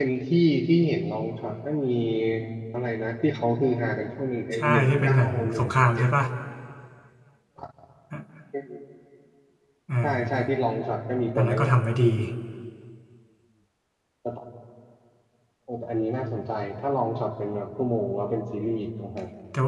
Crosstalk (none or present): present